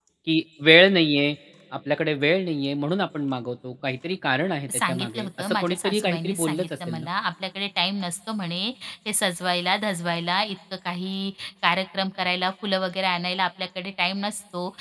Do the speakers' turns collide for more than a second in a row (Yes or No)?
Yes